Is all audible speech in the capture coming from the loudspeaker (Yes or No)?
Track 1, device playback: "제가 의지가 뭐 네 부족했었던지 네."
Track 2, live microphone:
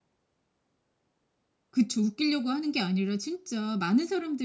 No